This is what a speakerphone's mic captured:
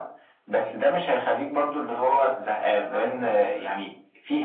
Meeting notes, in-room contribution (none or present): present